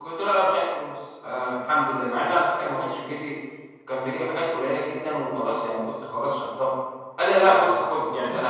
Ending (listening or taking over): taking over